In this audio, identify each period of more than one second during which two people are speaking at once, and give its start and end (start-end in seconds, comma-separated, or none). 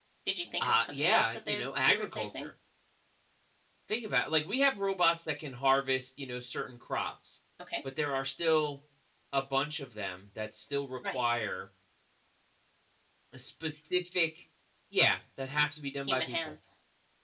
0.6-2.5